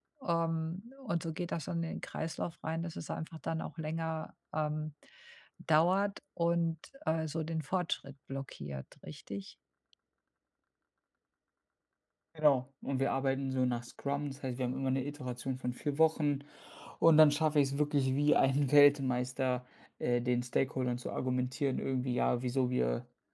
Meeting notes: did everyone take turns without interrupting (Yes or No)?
Yes